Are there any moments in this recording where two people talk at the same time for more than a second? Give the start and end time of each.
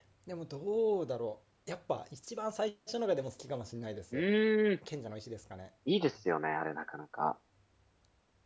none

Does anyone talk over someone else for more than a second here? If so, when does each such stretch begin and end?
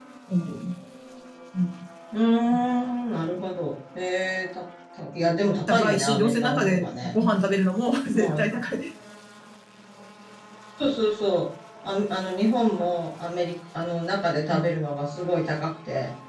5.7-7.1

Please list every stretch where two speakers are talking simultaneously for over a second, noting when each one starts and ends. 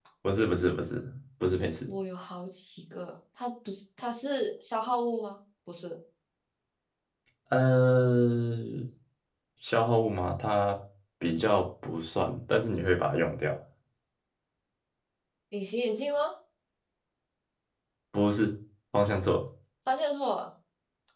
none

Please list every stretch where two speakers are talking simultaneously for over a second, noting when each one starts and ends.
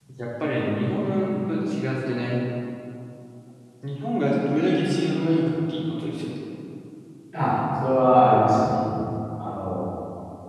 none

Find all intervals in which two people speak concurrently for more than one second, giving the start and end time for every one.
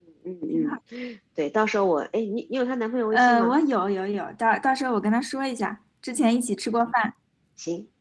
none

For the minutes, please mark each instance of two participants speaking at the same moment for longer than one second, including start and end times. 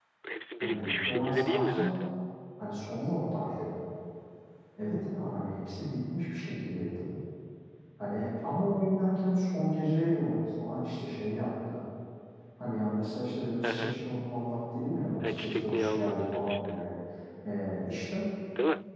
0.6-2.0, 15.2-16.8

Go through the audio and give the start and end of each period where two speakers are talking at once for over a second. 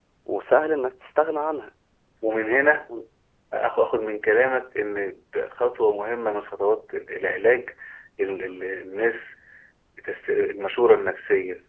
none

